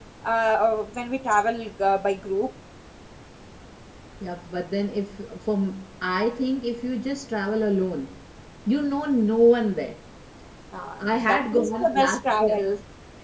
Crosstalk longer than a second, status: present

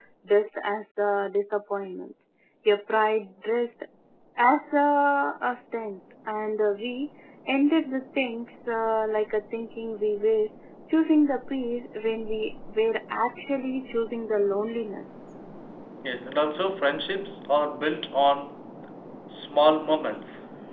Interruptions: none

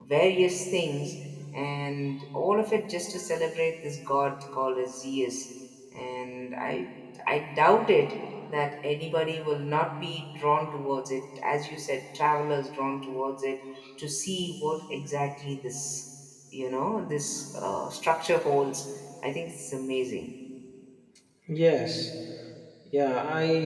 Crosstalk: none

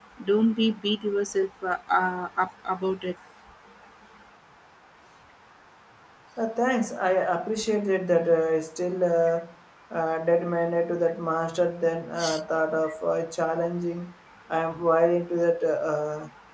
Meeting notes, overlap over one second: none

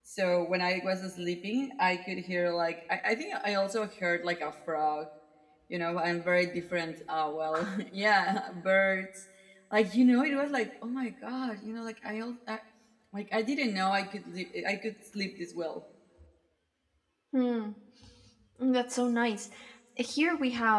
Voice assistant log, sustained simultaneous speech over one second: none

